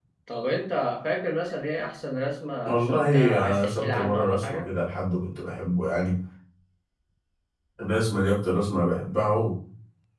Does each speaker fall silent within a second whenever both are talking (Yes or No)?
No